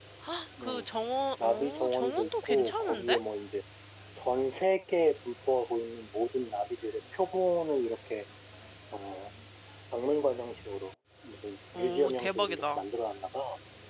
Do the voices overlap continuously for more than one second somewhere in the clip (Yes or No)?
Yes